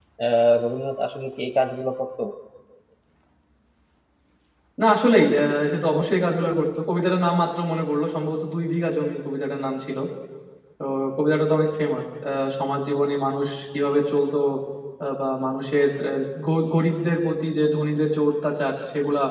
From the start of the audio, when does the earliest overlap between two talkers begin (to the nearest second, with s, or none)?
none